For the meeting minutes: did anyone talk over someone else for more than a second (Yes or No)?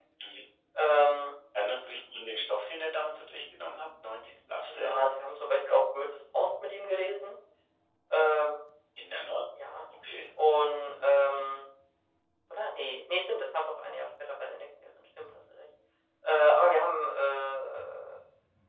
No